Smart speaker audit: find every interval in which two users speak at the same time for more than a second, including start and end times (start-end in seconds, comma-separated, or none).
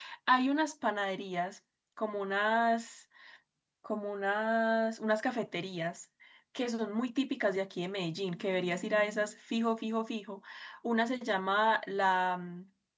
none